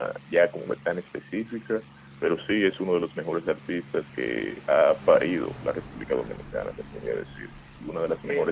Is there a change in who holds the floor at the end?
Yes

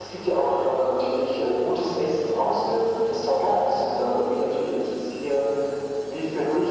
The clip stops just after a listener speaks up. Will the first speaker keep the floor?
Yes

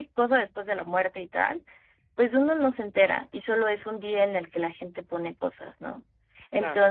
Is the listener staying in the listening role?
Yes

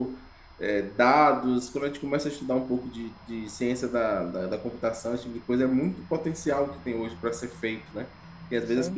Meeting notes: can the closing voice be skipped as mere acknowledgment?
Yes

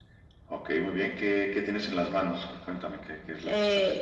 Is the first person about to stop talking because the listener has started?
Yes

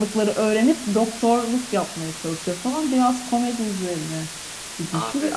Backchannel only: Yes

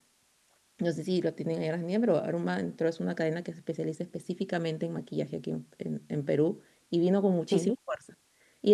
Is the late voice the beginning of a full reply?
No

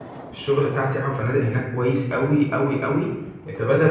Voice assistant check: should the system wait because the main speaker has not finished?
Yes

